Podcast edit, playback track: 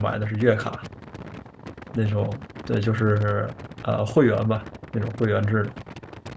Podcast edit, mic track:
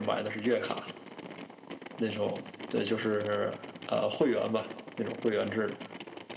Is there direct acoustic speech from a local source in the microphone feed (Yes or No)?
No